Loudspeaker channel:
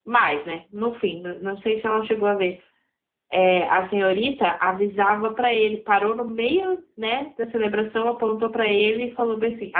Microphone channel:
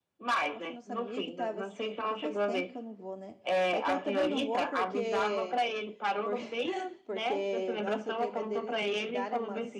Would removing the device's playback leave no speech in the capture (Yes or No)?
No